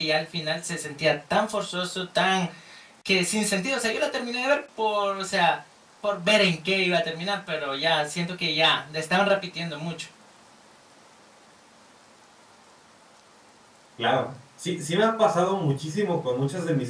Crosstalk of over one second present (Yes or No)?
No